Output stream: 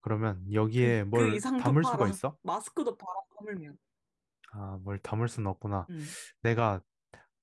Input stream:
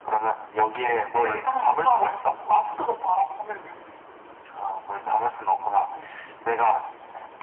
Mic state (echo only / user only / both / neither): echo only